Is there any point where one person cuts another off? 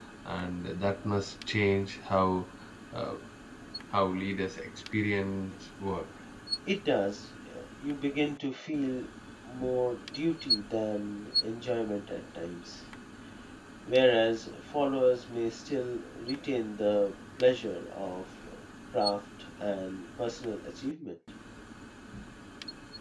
No

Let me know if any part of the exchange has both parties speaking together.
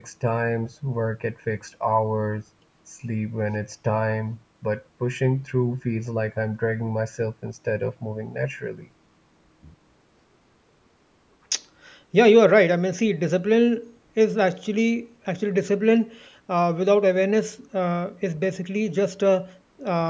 No

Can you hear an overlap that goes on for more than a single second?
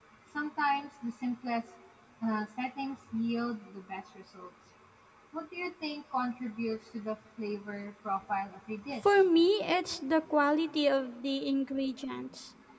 No

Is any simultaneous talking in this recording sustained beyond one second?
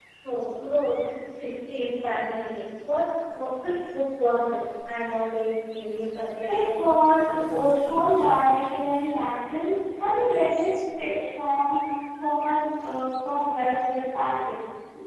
Yes, from 6.5 s

